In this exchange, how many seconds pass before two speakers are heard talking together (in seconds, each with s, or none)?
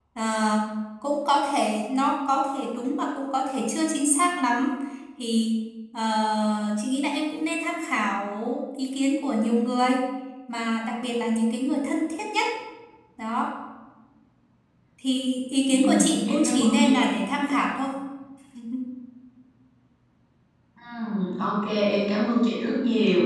15.7 s